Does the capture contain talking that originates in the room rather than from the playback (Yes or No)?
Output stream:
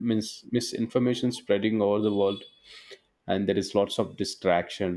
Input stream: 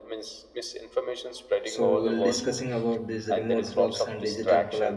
Yes